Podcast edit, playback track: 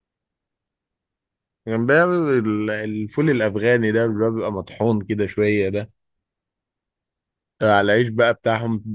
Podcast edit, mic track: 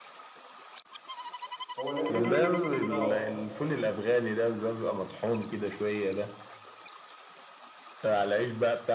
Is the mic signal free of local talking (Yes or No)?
No